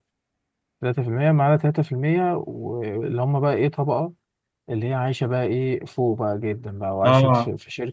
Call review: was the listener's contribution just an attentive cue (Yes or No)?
Yes